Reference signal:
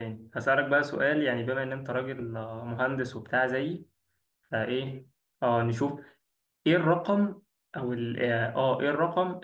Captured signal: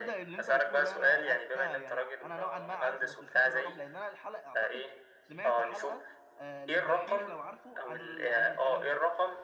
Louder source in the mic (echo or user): echo